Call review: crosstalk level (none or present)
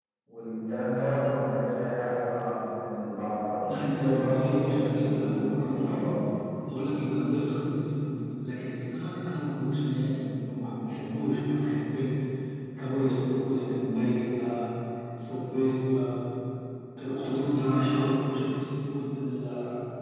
present